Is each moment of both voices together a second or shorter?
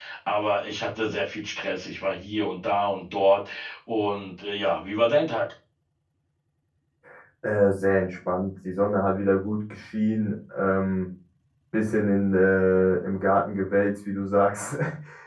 Yes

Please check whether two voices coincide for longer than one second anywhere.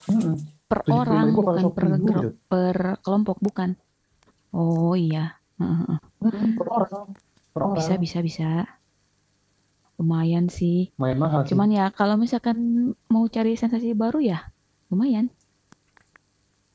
Yes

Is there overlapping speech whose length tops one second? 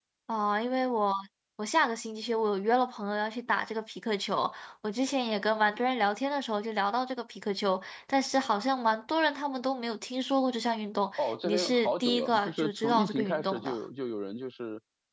Yes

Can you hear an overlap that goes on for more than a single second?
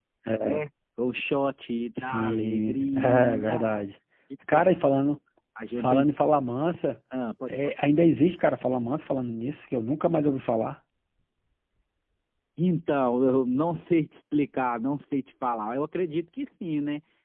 Yes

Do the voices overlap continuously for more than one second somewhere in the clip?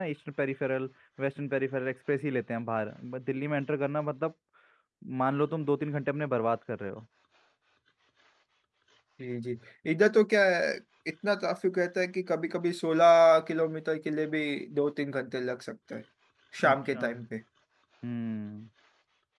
No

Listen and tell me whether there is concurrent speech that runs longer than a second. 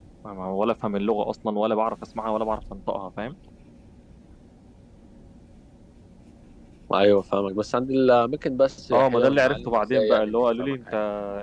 Yes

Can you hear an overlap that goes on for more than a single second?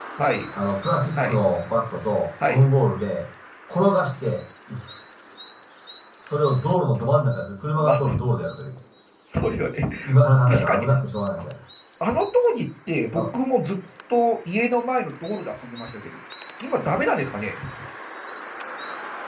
No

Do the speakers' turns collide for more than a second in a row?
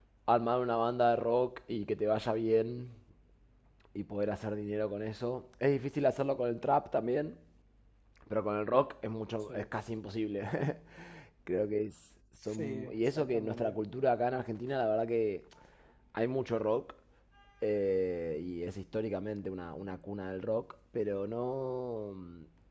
Yes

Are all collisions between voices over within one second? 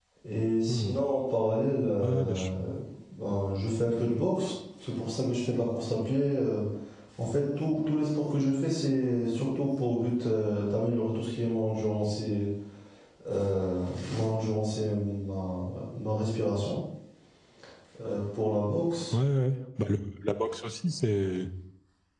Yes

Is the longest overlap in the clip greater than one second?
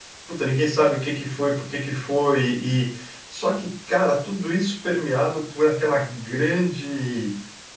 No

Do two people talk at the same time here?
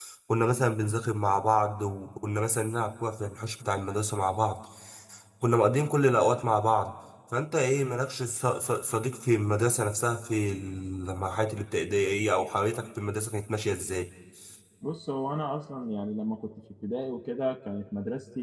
No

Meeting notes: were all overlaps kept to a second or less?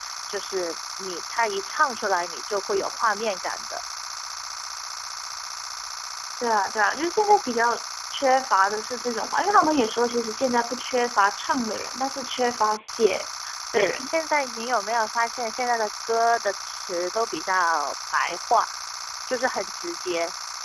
Yes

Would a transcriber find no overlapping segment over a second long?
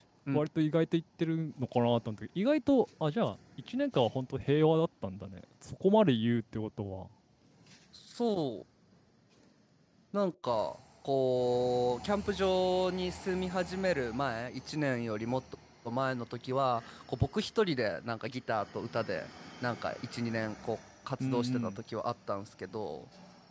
Yes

